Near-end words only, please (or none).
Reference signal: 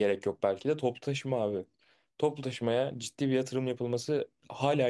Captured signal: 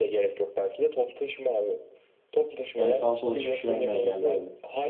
Yani sağa sola çıkış vermeyen yerlerde.